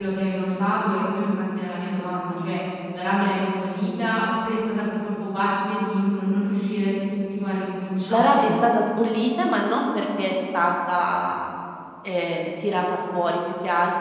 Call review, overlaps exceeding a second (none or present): none